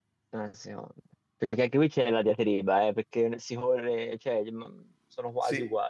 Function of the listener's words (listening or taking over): taking over